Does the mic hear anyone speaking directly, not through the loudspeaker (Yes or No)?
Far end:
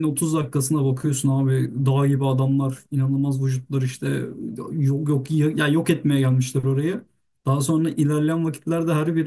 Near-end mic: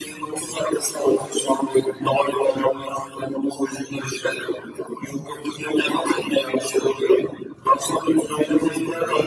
Yes